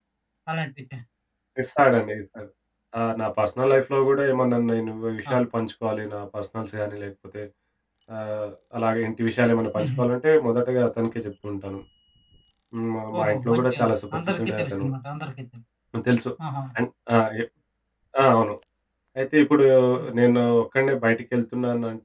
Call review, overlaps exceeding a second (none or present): present